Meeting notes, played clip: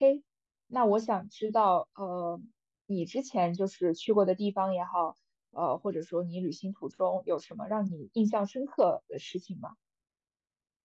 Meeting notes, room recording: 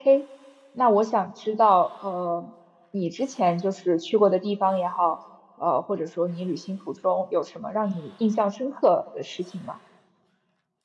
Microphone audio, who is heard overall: echo only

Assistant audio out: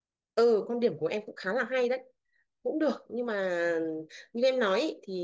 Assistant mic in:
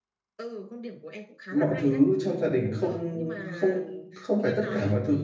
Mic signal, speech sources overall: both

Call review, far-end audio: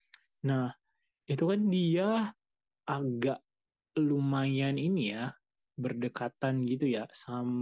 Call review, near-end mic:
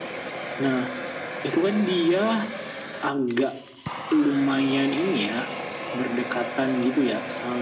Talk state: echo only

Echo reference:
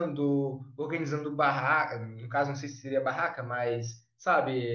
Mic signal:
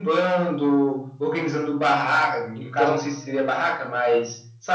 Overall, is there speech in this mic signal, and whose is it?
both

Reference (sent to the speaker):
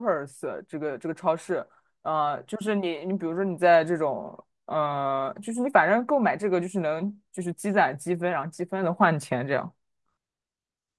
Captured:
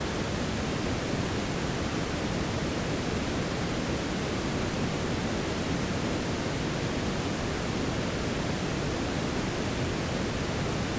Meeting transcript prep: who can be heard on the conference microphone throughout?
neither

